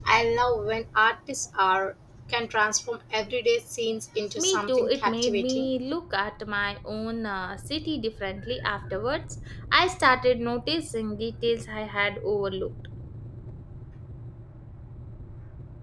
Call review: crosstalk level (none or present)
present